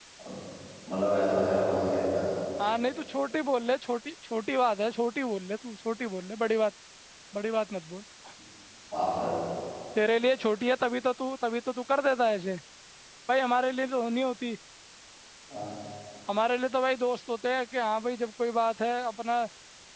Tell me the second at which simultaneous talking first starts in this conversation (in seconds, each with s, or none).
none